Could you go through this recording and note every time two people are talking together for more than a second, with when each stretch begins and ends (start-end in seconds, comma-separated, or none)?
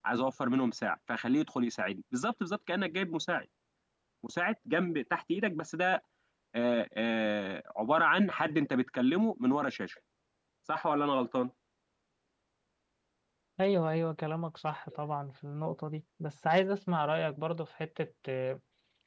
none